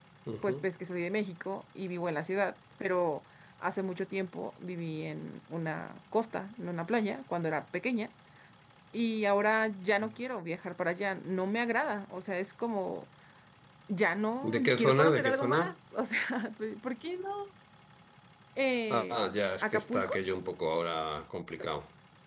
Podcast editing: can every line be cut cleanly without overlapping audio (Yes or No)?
No